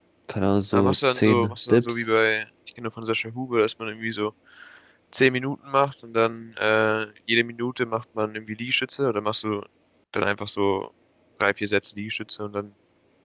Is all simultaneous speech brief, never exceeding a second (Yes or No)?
No